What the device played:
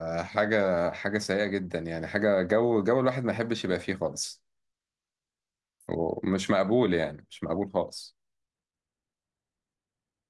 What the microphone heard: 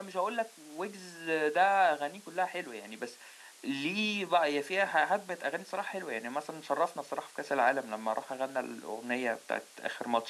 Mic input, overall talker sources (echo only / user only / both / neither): user only